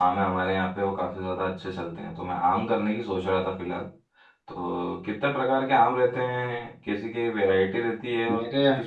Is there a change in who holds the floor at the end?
No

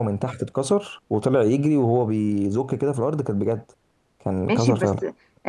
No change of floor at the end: No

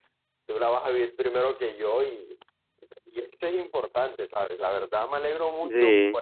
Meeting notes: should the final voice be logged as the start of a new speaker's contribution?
No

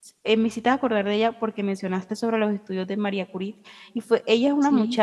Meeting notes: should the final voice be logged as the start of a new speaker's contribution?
No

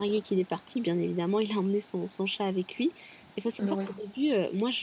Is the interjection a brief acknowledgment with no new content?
Yes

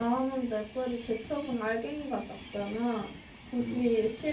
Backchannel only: Yes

